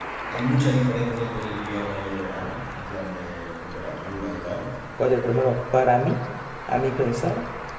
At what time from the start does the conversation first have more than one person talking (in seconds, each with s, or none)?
none